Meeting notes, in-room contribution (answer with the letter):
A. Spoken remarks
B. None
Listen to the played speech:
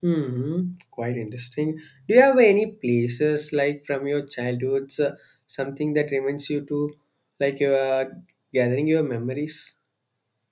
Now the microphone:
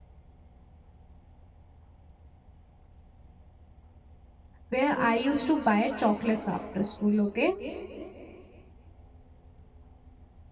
A